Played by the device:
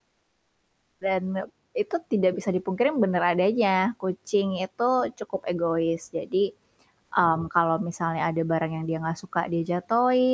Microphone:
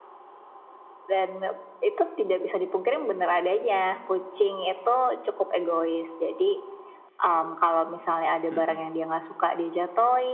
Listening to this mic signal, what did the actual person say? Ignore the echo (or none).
Mhm.